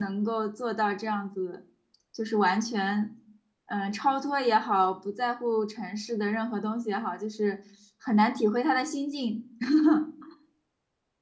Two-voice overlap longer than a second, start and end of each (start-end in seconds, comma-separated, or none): none